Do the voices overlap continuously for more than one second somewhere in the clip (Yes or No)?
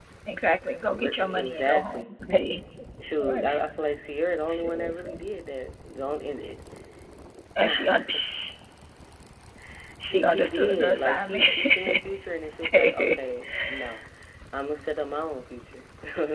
Yes